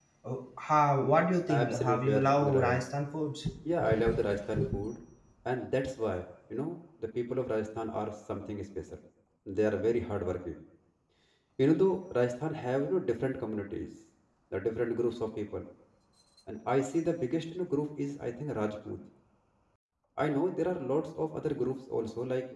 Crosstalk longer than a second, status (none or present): present